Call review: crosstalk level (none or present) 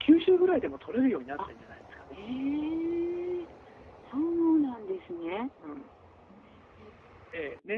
none